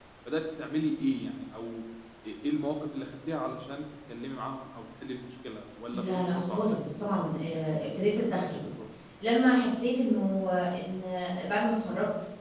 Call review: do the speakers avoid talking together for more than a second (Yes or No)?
No